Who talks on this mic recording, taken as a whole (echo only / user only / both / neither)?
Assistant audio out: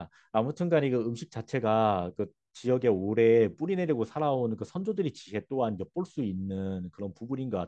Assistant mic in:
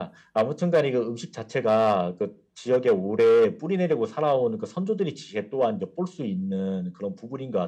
echo only